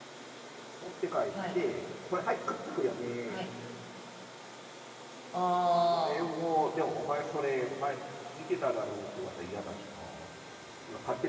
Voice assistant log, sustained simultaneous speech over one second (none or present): none